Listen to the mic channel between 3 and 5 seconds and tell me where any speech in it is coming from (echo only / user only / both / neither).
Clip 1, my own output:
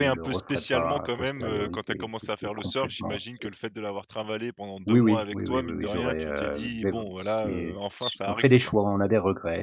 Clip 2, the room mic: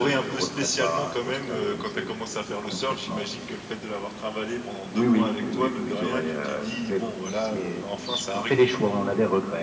echo only